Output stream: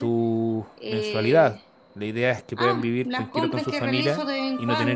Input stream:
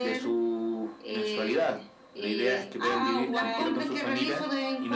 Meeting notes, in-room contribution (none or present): present